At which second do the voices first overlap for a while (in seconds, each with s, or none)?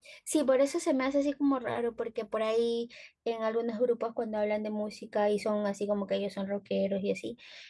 none